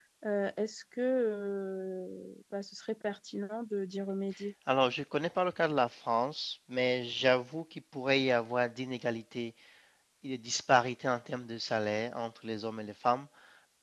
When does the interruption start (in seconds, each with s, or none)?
none